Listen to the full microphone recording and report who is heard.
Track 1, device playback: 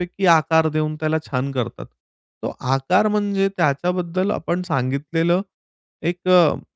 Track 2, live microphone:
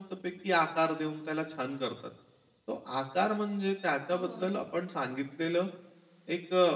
both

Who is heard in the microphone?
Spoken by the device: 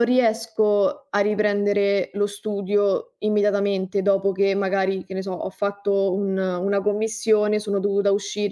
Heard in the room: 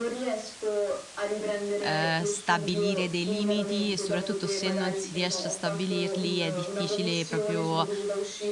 both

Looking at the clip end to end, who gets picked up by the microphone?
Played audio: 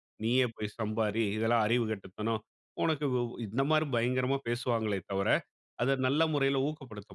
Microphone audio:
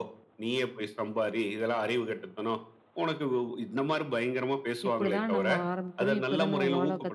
both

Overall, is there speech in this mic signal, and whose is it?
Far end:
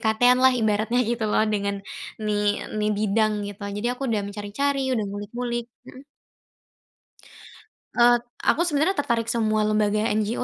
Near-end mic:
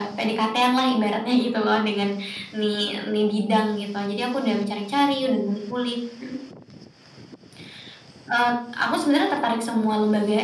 echo only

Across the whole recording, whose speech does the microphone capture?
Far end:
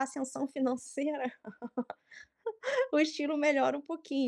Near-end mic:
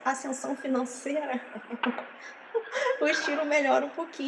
echo only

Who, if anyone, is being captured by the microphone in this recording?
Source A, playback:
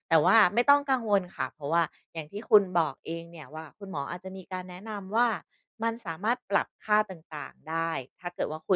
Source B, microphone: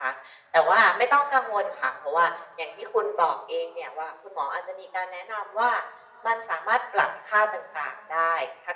echo only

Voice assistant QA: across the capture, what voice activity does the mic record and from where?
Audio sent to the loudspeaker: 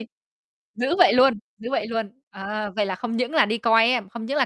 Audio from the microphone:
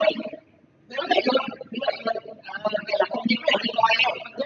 echo only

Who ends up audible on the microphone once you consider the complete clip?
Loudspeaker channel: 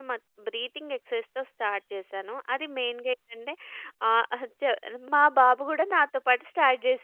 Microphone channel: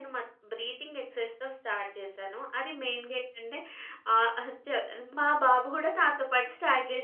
echo only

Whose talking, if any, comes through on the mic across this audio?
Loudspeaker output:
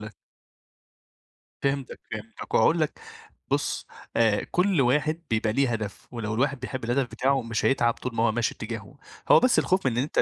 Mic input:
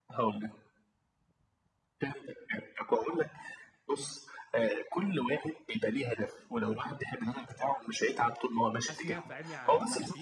both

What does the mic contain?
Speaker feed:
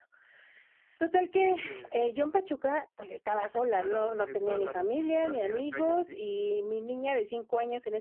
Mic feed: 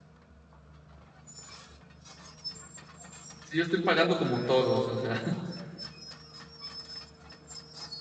user only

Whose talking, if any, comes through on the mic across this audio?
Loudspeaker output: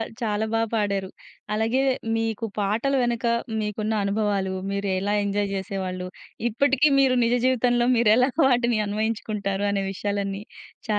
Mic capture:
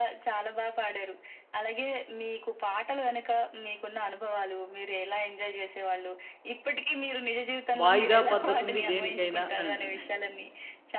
both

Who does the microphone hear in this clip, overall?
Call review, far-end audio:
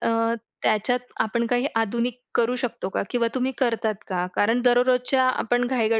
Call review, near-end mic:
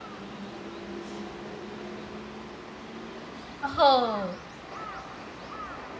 user only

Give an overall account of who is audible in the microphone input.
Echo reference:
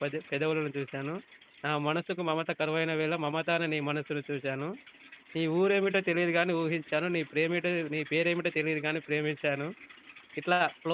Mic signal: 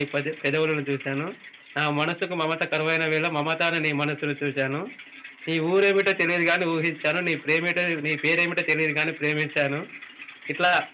echo only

